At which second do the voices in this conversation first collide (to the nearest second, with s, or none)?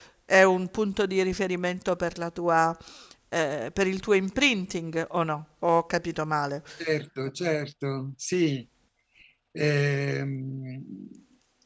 none